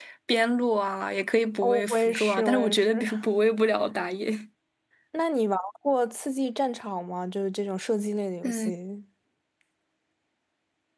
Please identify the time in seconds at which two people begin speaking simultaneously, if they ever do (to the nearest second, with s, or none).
2 s